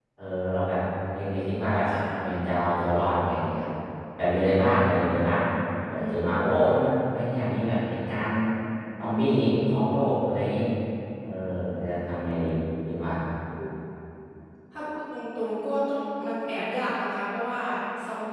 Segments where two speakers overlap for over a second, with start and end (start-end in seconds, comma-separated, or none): none